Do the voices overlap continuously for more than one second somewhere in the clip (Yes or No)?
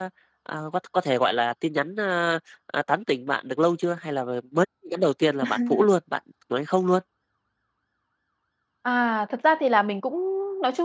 No